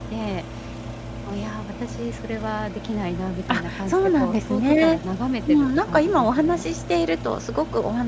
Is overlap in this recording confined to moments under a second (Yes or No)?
No